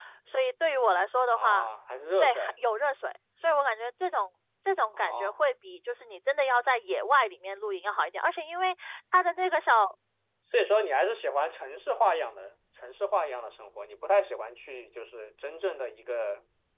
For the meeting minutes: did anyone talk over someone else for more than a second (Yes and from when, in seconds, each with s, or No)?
No